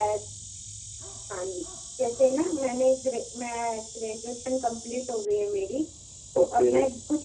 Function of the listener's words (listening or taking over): listening